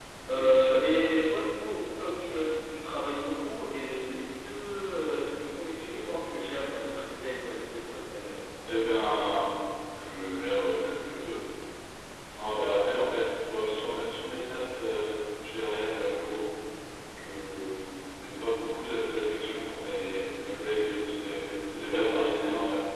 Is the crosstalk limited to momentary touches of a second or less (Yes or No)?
Yes